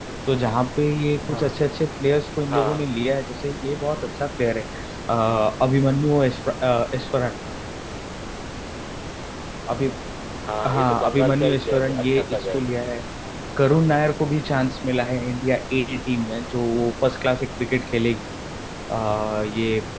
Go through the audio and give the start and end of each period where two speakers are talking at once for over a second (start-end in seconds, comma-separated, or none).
10.7-12.7